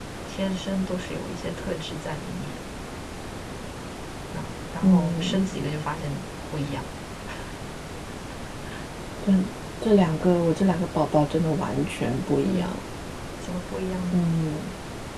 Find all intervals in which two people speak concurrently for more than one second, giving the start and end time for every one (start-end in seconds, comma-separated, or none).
none